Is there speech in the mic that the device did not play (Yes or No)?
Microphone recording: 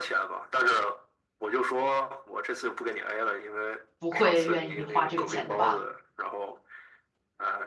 Yes